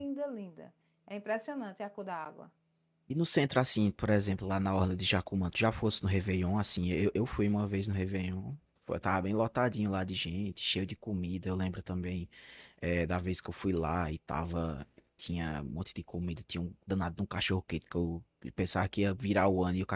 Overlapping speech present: No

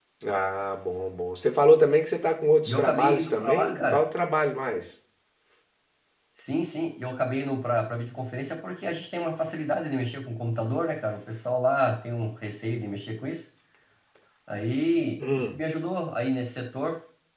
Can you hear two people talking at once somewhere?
Yes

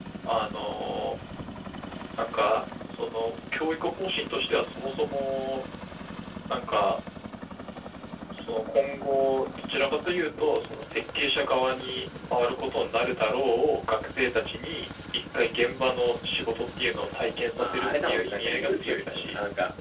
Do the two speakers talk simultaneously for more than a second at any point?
Yes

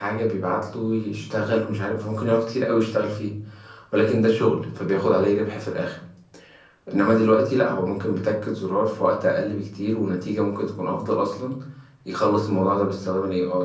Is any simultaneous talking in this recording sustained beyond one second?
No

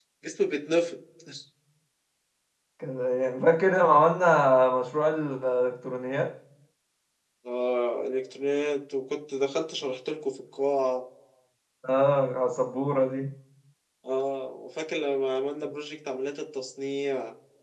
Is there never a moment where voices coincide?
Yes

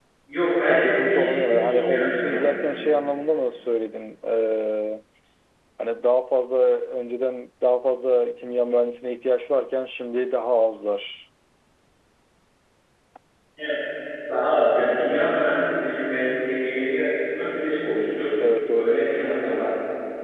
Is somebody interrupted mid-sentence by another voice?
Yes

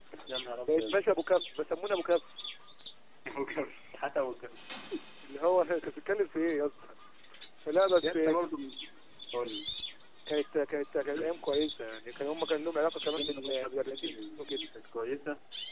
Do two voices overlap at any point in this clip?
Yes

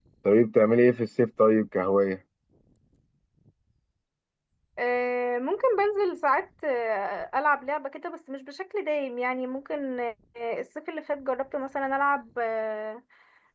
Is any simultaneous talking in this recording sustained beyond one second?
No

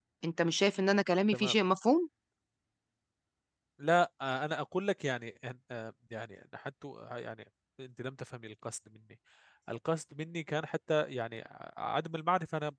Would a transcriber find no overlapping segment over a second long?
Yes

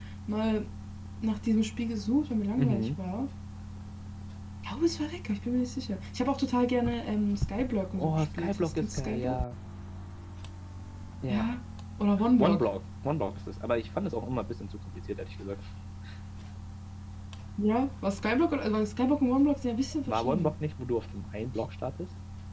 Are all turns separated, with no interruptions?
No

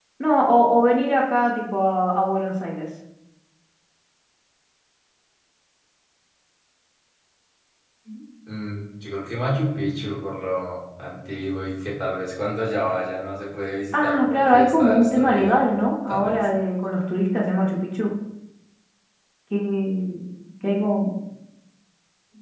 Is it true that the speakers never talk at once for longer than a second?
No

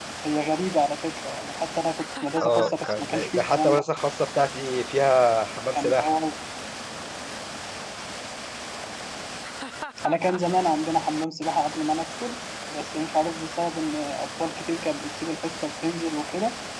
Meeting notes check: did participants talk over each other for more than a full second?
Yes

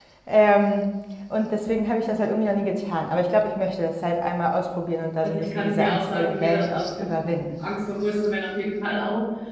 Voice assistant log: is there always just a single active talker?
No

